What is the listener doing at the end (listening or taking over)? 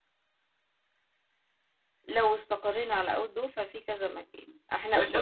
taking over